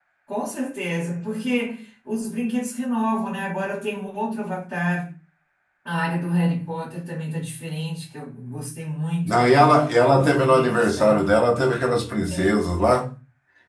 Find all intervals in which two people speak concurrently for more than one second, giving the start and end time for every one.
9.2-11.2

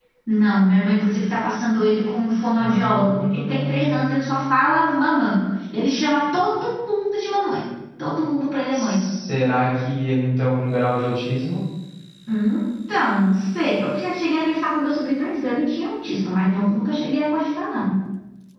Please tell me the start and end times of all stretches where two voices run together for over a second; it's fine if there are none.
2.6-4.5

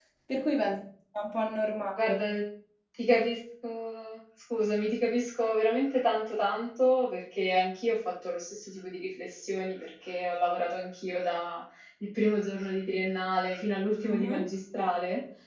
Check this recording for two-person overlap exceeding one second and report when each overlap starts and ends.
none

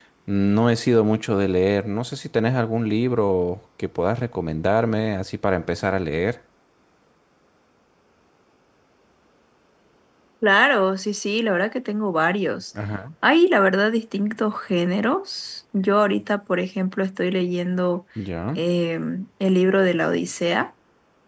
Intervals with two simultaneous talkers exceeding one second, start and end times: none

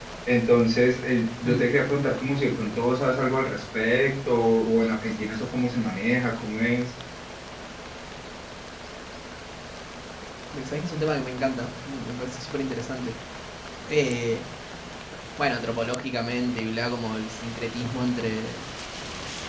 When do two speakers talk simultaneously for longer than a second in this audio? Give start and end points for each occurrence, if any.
none

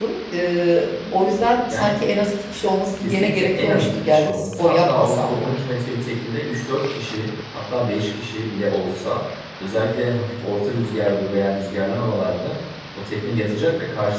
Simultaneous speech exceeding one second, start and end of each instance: 3.0-5.5

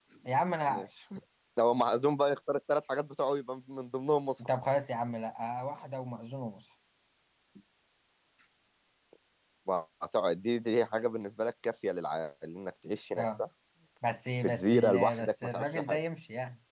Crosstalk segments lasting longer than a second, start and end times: 14.4-16.0

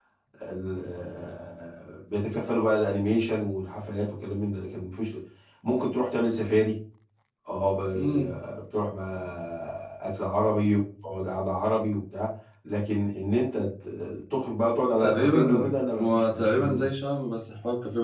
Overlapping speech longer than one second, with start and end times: 15.0-16.9

